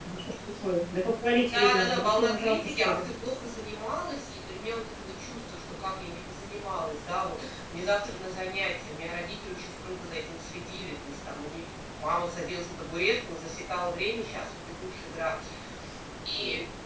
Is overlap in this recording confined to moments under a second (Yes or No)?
No